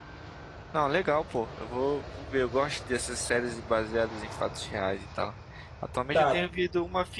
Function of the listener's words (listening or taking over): listening